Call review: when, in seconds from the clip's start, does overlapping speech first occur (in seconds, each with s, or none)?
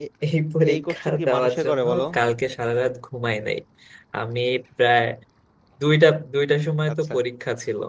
0.7 s